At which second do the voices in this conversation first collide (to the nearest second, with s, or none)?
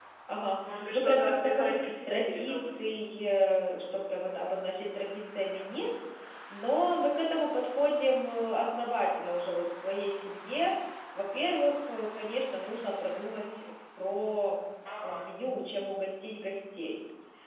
1 s